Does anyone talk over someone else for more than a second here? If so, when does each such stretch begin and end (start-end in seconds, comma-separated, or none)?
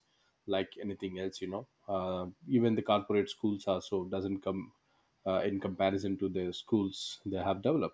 none